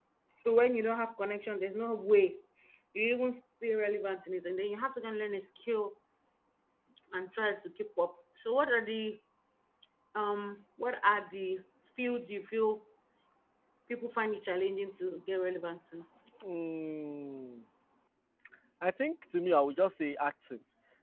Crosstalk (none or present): none